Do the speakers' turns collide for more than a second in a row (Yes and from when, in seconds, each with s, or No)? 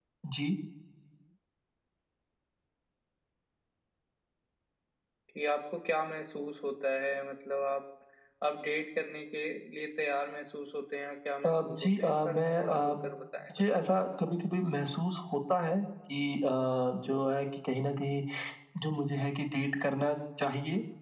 Yes, from 11.4 s